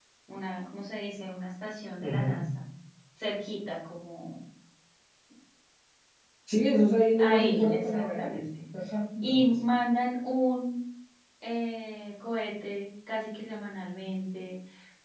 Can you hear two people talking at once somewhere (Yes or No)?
Yes